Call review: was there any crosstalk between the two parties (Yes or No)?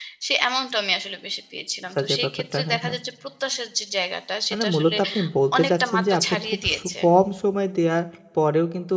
Yes